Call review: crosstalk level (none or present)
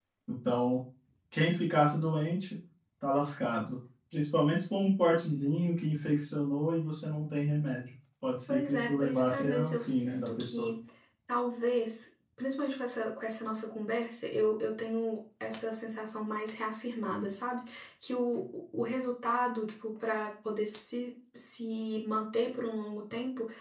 present